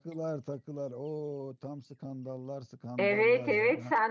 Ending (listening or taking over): taking over